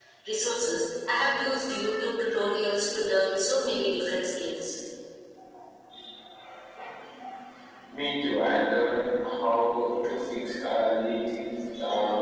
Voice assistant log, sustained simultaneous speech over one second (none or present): none